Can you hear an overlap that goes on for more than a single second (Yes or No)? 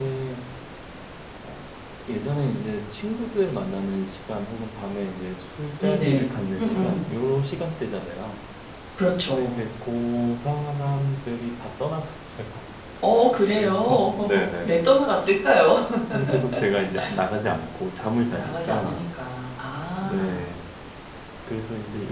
Yes